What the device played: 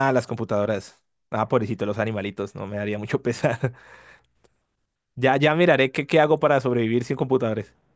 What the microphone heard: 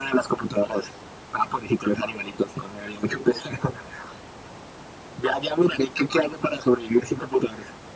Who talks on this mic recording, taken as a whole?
echo only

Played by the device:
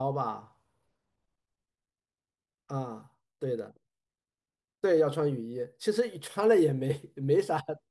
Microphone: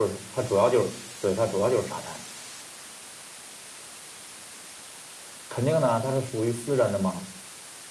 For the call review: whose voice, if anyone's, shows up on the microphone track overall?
user only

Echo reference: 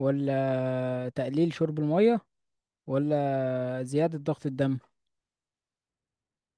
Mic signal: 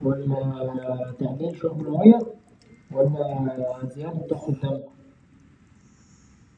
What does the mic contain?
echo only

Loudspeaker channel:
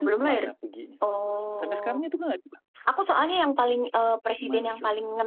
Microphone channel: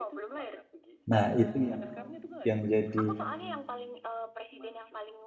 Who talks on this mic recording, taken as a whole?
both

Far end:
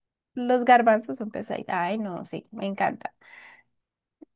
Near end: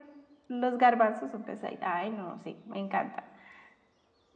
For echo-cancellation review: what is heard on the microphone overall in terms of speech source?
echo only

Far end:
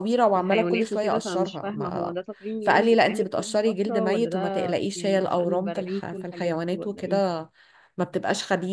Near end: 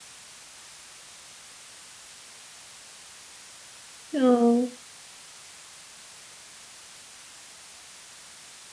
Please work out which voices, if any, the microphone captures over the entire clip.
user only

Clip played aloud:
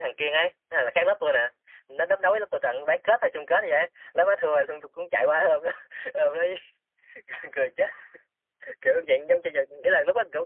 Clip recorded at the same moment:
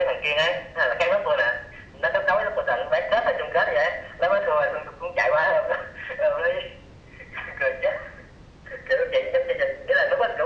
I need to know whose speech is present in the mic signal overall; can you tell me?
echo only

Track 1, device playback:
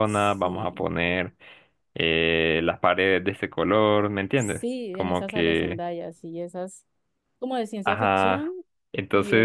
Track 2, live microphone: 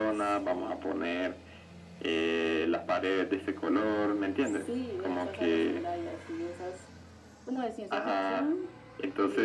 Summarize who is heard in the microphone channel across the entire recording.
echo only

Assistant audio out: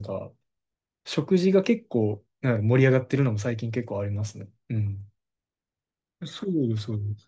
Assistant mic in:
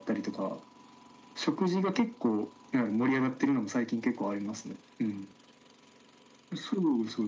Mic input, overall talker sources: echo only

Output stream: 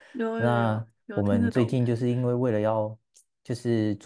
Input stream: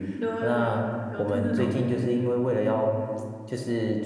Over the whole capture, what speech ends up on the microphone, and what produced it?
echo only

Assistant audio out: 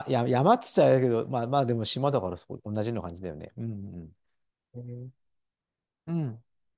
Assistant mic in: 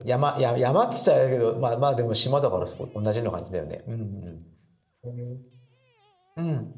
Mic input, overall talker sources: echo only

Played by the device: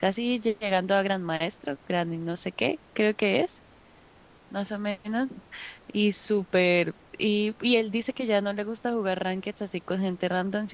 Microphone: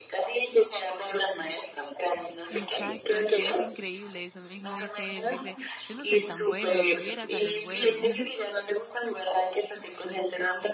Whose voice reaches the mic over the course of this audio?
both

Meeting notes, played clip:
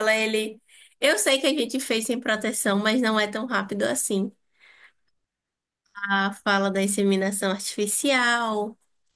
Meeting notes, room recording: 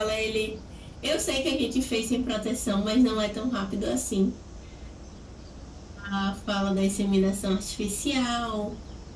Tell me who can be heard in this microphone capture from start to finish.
echo only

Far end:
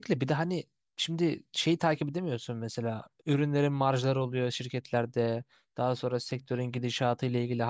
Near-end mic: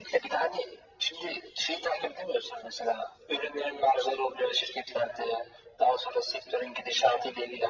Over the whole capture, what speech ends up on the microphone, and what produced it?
echo only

